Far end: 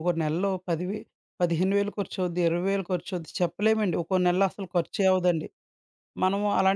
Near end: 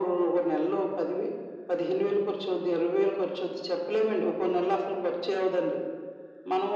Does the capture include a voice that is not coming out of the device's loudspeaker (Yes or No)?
No